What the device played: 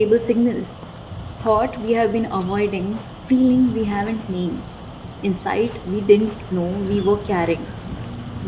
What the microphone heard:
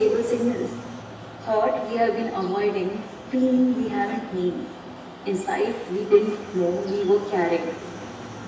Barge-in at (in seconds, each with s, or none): none